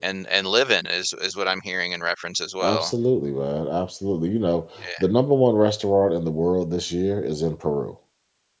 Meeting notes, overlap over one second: none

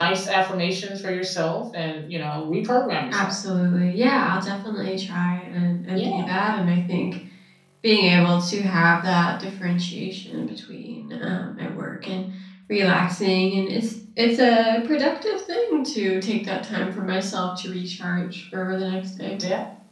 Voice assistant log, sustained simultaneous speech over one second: none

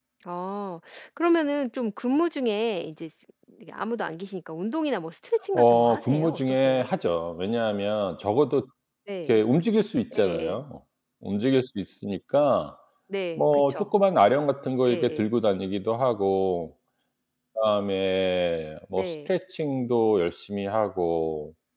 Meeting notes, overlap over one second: present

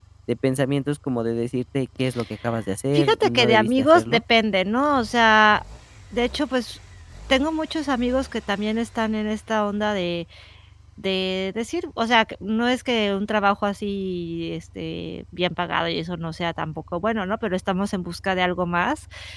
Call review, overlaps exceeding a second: present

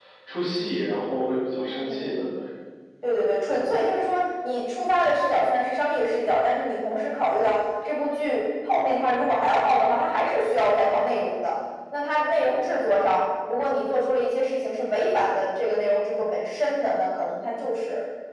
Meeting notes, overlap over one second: none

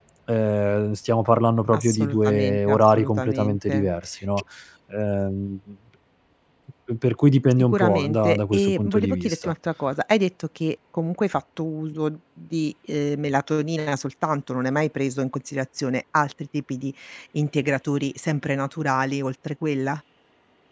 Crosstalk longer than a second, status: present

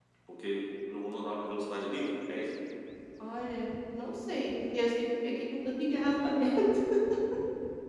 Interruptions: none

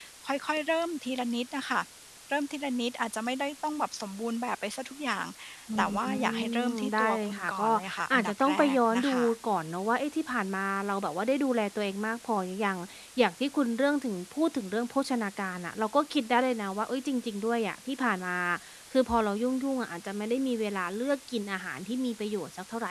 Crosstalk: present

